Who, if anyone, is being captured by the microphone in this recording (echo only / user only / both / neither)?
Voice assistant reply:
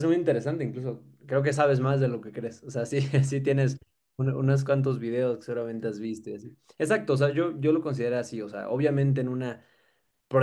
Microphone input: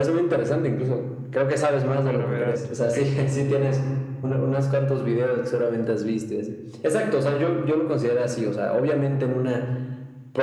both